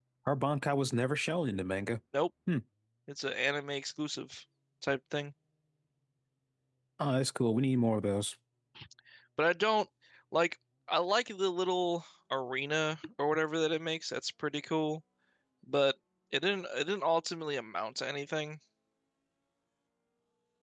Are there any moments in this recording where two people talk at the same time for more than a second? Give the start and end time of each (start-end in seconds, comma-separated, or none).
none